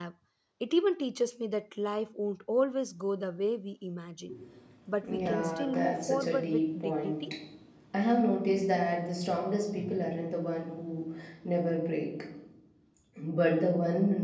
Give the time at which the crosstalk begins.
5 s

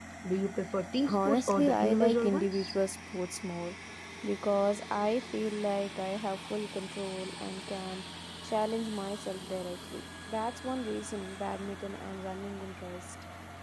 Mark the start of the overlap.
1 s

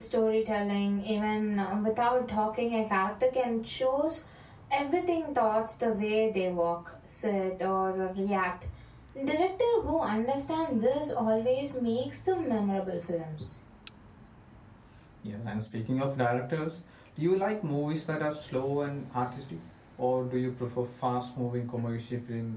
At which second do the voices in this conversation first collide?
none

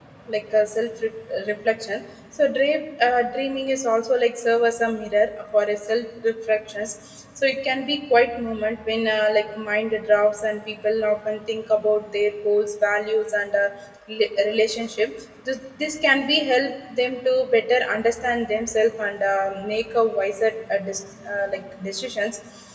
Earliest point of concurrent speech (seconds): none

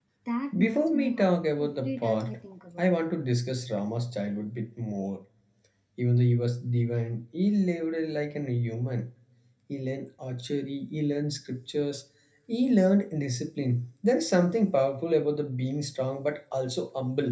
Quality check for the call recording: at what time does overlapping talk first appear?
1 s

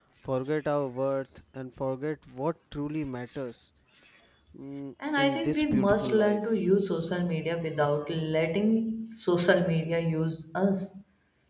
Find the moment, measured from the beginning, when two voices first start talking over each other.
5 s

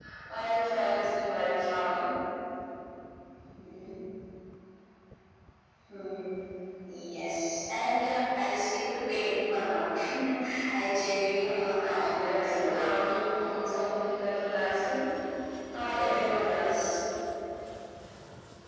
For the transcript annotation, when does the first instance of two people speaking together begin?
11 s

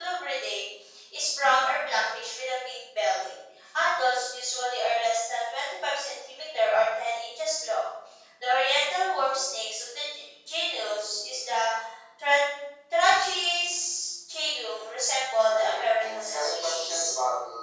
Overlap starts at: 15 s

